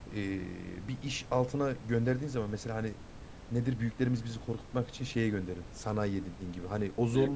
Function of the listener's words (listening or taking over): listening